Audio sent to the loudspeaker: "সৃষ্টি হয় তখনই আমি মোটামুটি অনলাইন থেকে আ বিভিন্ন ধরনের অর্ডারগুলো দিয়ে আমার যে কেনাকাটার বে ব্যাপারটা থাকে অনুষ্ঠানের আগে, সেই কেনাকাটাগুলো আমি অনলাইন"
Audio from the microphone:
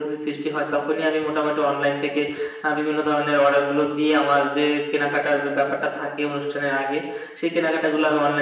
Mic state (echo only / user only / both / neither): echo only